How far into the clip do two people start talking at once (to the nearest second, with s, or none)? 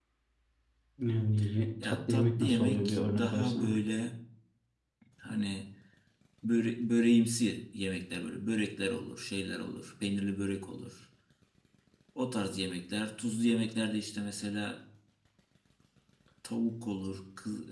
2 s